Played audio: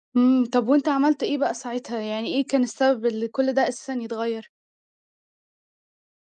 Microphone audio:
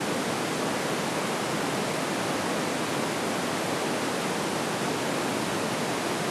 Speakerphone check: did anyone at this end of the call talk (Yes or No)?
No